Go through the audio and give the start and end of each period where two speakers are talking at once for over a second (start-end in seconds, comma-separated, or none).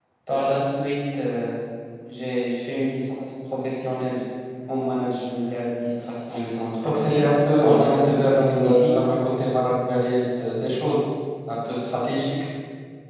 7.0-8.9